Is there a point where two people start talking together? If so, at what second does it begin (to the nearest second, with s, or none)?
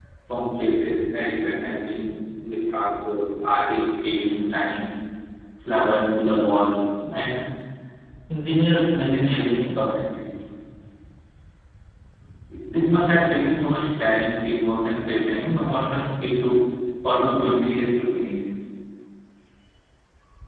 none